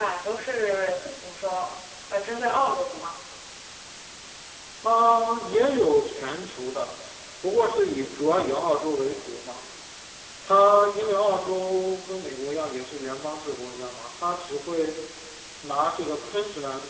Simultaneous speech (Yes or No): No